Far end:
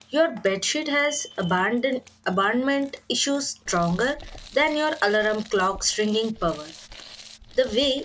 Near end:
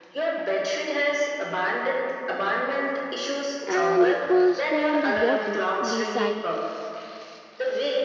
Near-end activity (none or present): present